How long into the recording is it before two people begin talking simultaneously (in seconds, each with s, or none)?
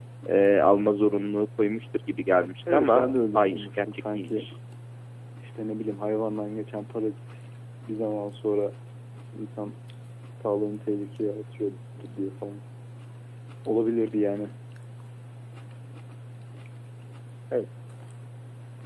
2.7 s